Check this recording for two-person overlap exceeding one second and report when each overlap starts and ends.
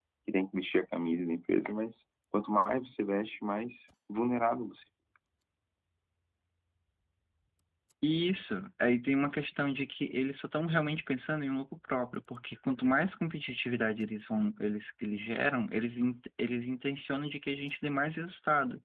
none

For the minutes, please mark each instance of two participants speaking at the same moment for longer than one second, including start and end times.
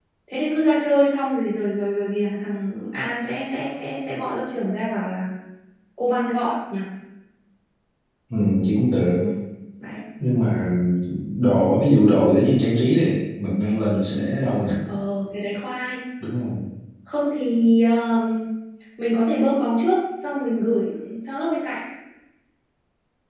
none

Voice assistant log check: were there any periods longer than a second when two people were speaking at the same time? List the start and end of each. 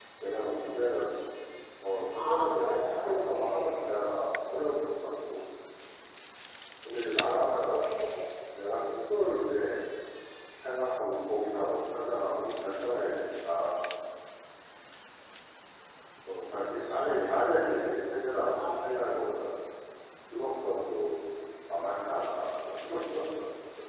2.1-3.9, 17.0-19.4

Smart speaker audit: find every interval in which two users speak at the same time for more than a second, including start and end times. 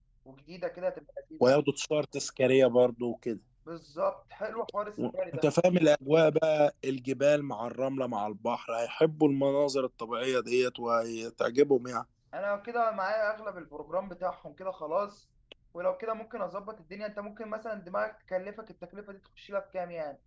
none

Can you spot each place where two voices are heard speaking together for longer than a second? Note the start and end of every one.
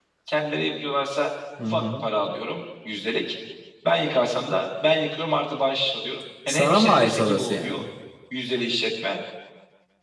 6.5-7.8

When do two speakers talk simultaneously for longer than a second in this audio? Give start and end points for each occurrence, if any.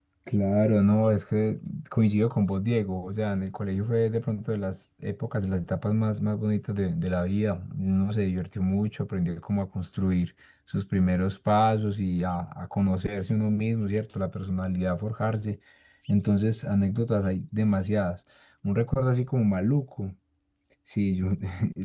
none

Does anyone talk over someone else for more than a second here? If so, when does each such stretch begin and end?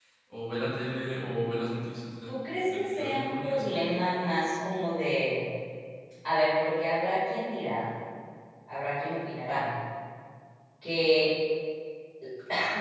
2.3-3.8

